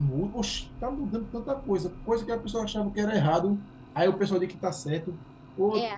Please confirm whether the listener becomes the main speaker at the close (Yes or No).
No